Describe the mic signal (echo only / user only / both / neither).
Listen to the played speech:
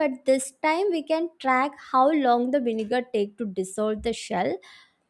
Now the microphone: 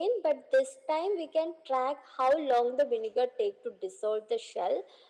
echo only